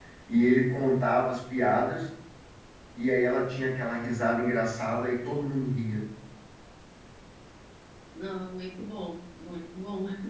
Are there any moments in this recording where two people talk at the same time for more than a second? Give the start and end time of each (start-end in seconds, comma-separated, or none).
none